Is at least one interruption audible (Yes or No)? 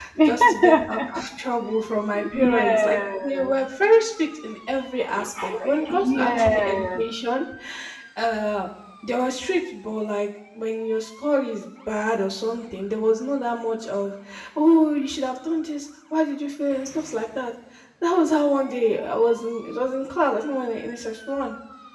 Yes